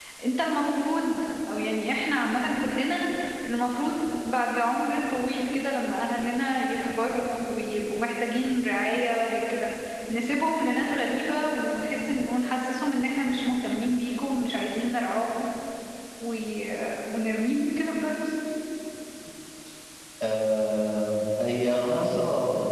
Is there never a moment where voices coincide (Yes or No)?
Yes